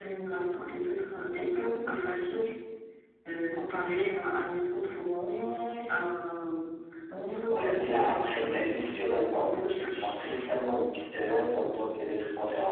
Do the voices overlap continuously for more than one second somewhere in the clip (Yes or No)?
Yes